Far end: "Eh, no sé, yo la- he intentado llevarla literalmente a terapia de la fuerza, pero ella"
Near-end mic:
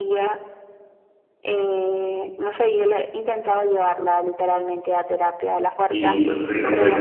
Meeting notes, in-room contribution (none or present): present